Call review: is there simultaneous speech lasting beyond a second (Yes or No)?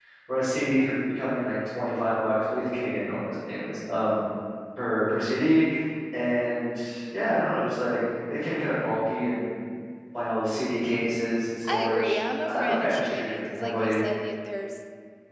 Yes